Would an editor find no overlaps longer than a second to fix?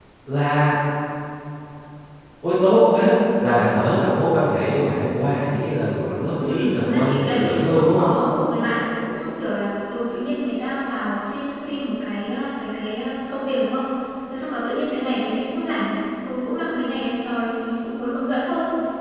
No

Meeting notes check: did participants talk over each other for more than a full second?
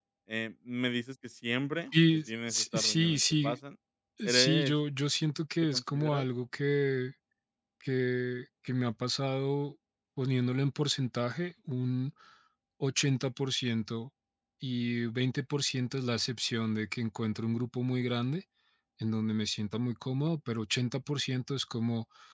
Yes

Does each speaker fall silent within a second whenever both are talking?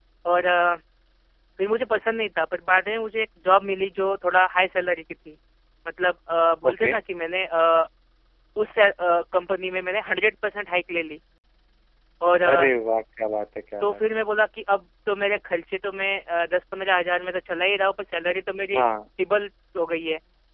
Yes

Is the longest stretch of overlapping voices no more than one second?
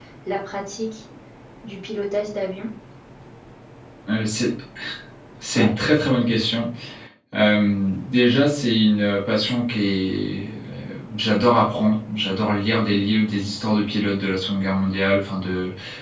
Yes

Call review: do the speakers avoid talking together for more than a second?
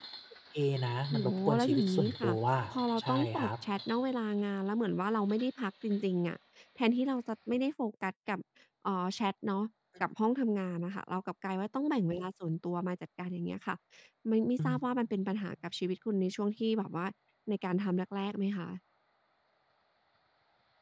No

